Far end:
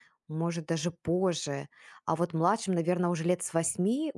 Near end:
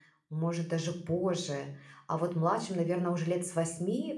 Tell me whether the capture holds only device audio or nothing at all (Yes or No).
Yes